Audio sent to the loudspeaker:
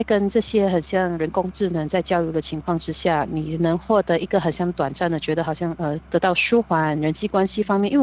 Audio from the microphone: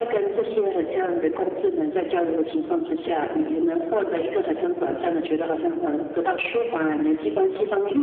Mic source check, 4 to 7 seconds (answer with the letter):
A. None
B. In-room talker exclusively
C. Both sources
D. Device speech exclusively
D